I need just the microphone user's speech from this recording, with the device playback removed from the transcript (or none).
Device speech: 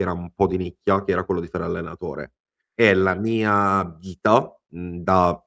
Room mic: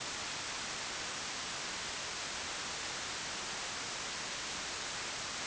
none